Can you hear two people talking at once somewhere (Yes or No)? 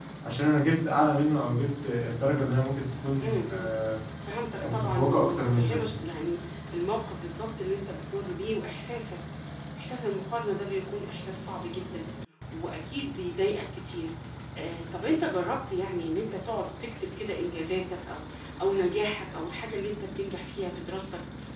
Yes